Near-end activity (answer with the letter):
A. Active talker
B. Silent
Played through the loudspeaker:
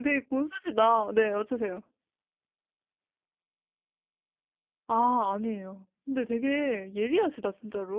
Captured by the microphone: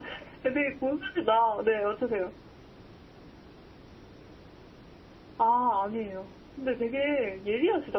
B